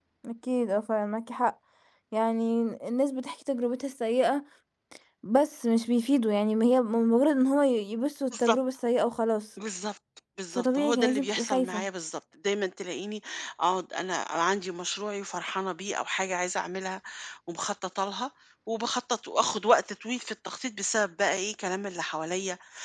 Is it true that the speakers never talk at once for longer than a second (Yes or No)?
No